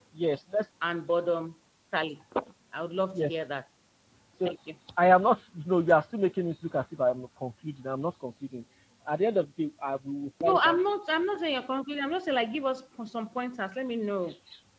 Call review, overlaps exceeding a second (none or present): none